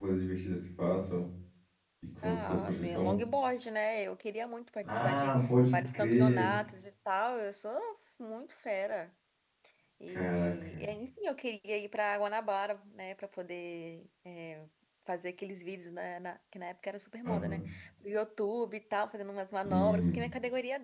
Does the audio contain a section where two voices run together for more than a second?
Yes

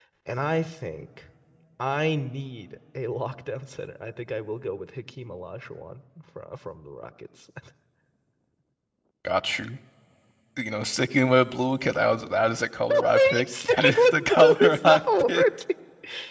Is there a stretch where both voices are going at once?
Yes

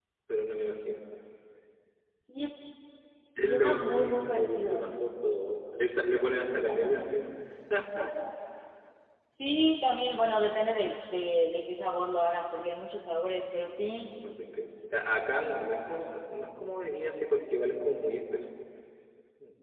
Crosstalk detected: Yes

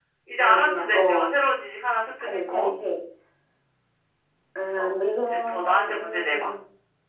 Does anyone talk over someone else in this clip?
Yes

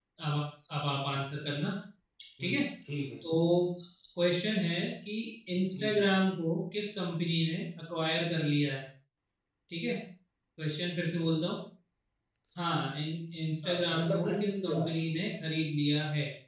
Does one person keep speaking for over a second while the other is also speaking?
Yes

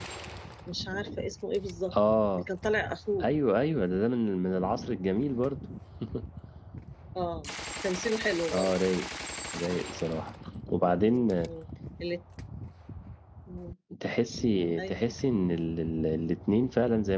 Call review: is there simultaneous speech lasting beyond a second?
No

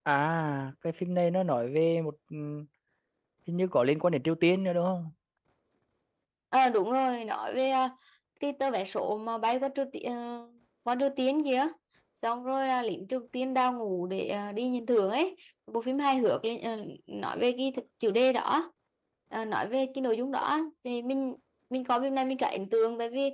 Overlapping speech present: No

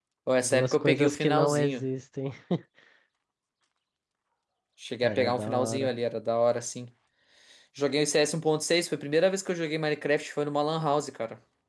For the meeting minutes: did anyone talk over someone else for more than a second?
Yes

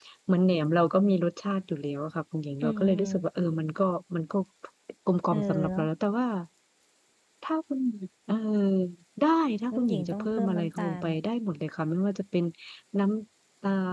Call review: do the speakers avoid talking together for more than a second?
No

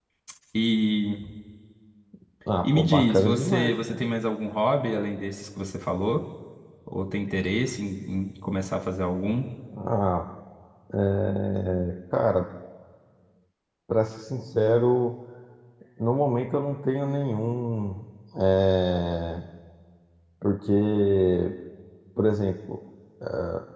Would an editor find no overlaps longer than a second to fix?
No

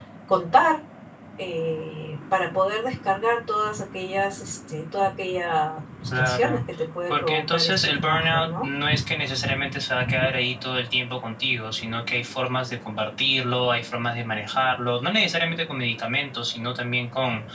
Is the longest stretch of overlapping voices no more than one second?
No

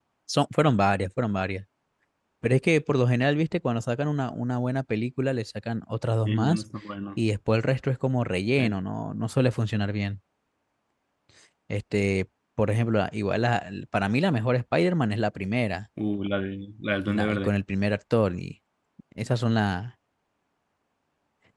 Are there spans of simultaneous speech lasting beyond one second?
No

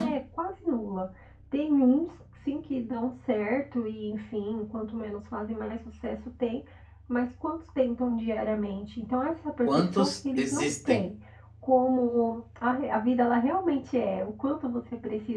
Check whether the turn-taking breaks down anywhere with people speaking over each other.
Yes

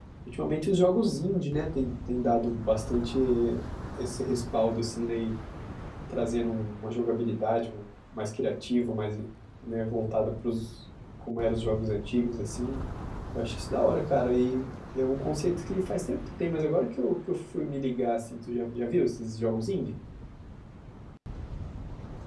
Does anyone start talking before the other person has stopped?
No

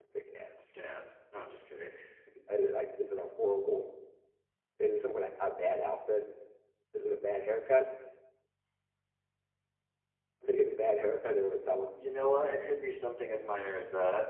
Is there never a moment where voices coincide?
Yes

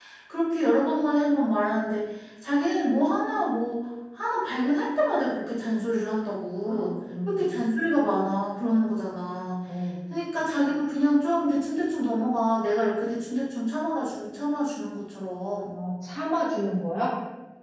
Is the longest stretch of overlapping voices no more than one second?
Yes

